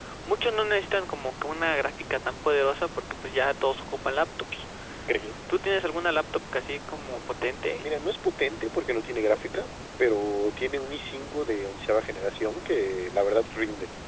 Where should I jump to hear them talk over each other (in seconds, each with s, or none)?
none